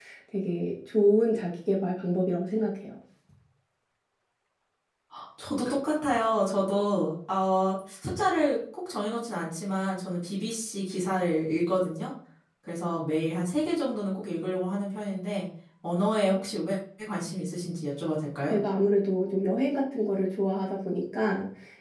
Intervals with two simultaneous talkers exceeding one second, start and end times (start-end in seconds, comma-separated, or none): none